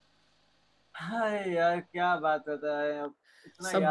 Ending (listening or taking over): taking over